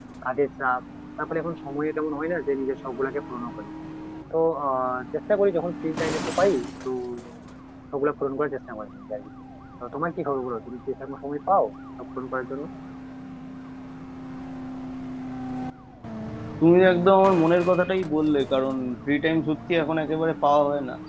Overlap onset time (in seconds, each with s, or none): none